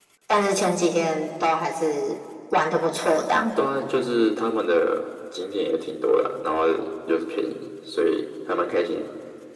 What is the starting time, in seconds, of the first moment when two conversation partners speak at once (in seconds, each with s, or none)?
none